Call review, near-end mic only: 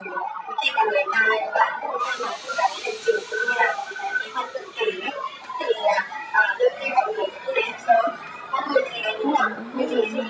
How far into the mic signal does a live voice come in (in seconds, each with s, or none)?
9.4 s